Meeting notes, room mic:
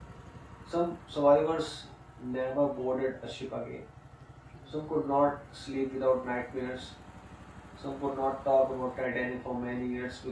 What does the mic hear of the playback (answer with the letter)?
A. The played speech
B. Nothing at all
B